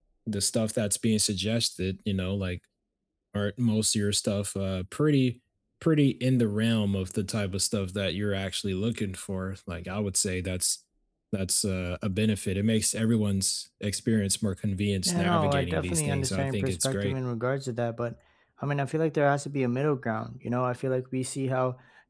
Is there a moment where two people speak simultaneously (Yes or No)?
Yes